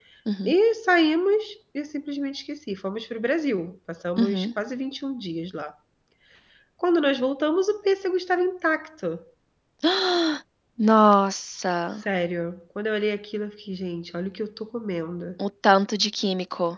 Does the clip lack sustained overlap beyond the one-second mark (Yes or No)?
Yes